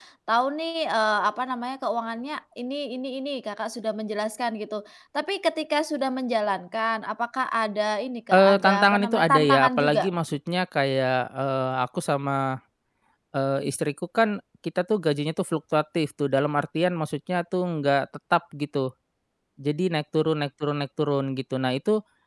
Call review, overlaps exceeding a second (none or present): present